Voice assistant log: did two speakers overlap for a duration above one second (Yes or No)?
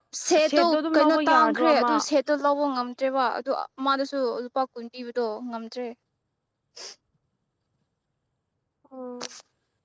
Yes